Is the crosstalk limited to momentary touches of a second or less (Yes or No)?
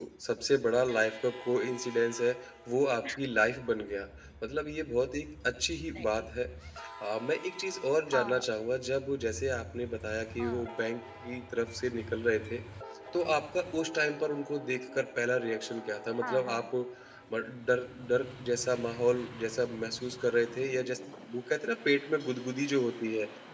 Yes